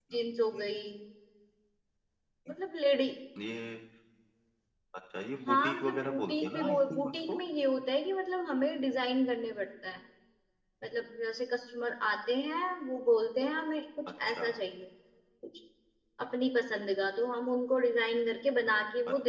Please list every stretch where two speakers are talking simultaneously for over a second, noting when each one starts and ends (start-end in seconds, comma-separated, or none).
5.5-7.4